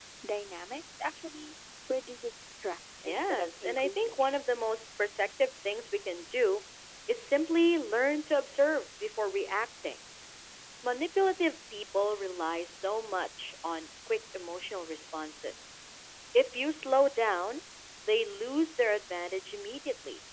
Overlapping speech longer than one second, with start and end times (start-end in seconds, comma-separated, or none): 3.1-4.3